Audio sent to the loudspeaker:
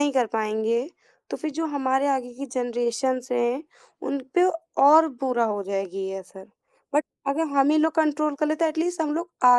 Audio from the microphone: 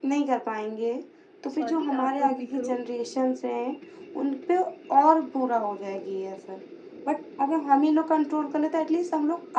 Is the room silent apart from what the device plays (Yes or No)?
No